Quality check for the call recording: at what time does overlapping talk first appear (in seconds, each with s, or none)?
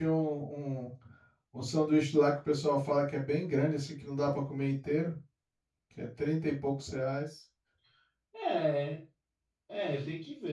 none